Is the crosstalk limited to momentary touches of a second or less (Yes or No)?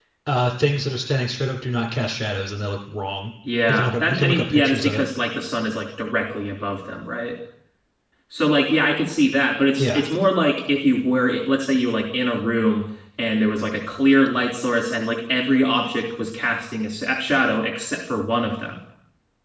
No